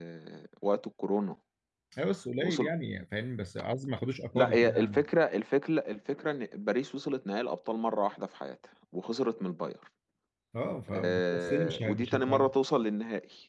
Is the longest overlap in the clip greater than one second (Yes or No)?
Yes